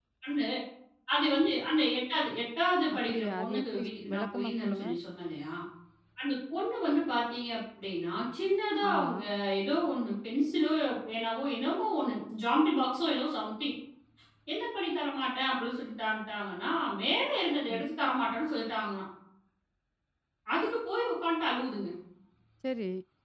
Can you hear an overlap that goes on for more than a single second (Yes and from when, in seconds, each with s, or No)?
Yes, from 3.0 s